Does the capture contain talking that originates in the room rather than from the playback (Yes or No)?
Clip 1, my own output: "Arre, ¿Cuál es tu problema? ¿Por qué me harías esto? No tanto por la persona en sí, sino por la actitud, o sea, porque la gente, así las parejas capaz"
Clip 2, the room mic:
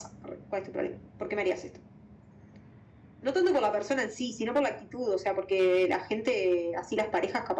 No